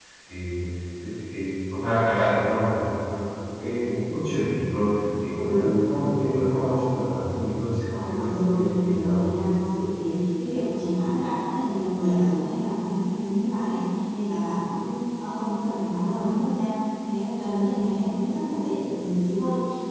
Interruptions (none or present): present